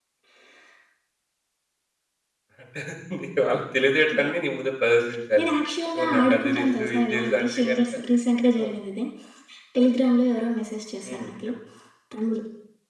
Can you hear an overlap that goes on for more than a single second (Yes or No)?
Yes